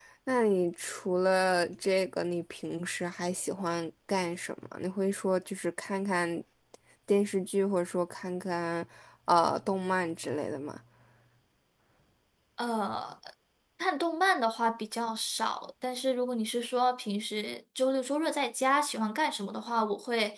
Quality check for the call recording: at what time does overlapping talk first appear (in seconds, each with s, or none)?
none